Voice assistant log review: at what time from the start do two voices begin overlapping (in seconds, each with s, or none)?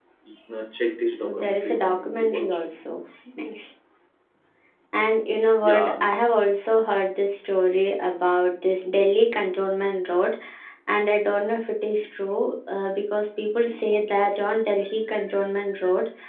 1.2 s